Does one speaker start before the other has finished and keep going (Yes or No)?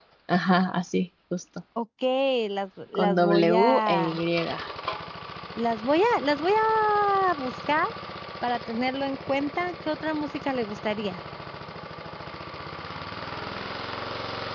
Yes